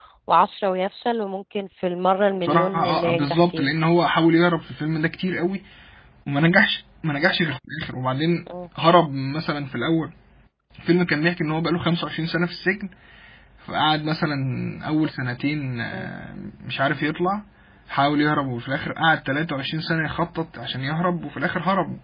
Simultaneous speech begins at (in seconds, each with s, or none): 2.4 s